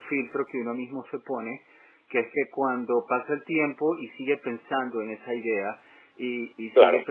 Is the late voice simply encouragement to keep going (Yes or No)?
Yes